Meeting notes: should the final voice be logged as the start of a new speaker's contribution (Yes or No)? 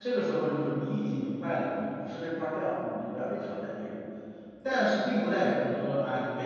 No